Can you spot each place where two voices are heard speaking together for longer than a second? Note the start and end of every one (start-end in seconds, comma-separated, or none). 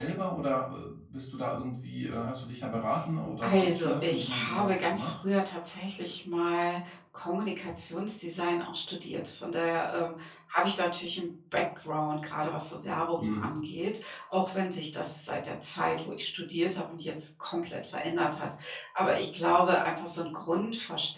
3.4-5.2